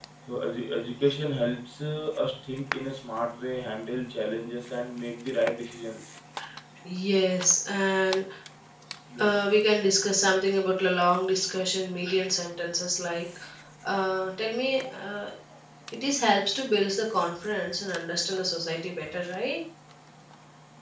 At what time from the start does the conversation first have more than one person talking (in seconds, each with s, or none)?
none